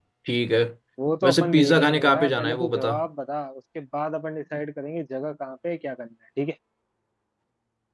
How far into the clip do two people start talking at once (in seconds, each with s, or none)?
1.2 s